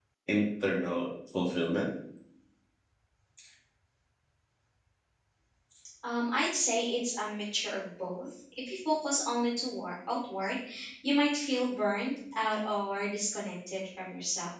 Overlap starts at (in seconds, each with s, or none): none